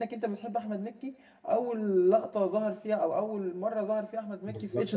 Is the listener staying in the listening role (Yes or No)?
No